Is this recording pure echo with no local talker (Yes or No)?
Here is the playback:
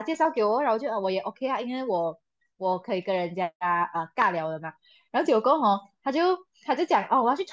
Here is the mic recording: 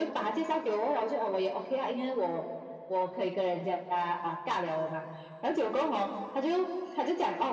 Yes